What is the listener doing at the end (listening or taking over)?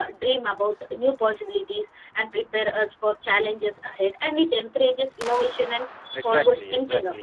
taking over